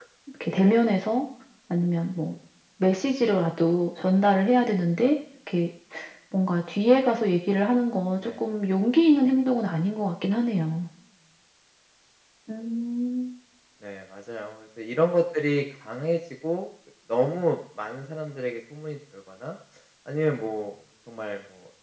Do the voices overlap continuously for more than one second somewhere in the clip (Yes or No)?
No